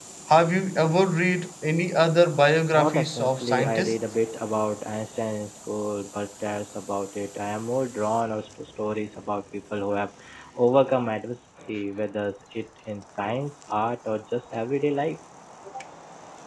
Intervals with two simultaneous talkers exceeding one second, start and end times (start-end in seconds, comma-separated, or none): 2.7-4.0